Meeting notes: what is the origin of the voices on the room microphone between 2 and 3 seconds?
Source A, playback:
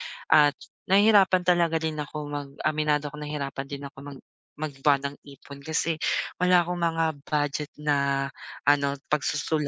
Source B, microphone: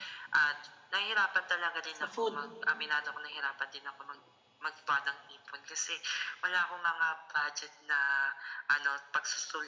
both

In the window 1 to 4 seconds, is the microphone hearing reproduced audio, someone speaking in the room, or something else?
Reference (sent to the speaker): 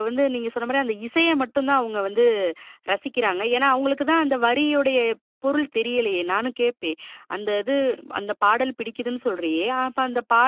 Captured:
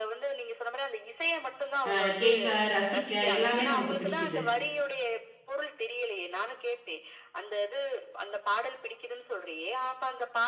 both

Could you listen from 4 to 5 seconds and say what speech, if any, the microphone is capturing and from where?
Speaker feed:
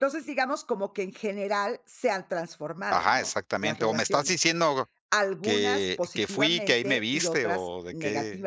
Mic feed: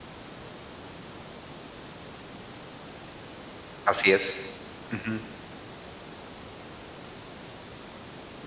user only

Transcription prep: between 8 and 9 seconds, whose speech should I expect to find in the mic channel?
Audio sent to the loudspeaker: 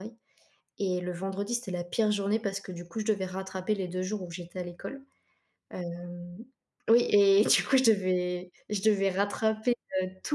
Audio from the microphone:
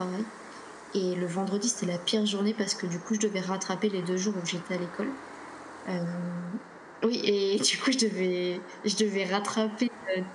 echo only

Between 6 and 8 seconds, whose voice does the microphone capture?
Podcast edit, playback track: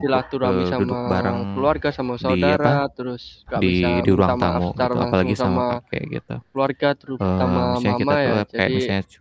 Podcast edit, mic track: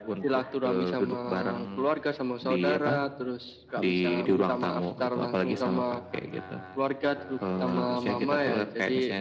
both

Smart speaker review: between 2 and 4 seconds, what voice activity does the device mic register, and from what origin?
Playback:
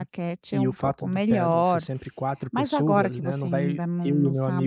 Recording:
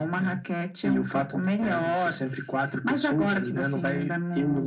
echo only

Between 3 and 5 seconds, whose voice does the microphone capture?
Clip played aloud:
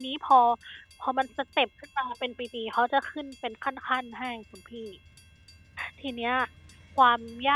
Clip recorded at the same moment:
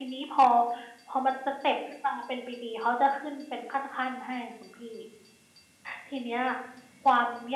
echo only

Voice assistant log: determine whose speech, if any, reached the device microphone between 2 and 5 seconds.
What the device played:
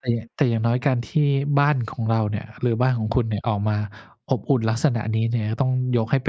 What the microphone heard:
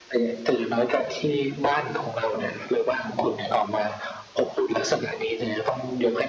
echo only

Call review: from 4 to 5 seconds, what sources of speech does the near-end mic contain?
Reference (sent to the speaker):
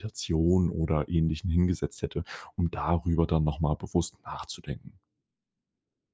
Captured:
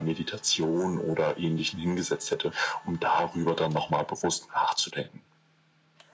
echo only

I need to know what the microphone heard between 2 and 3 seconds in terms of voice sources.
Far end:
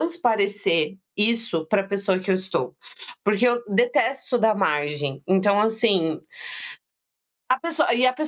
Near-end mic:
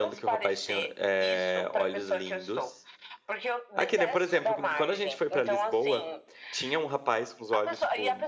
both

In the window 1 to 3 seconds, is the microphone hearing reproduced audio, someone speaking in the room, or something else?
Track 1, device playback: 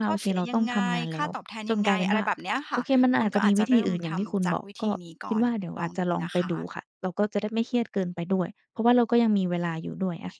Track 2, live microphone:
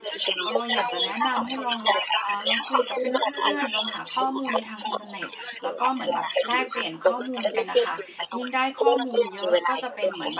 both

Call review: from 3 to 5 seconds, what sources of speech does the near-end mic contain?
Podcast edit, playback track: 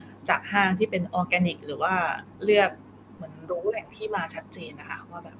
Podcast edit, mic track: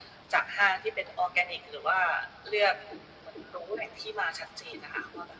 echo only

